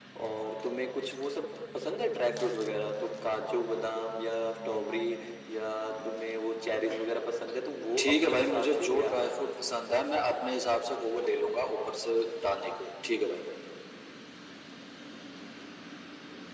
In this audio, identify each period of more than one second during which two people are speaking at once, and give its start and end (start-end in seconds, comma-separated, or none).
8.0-9.3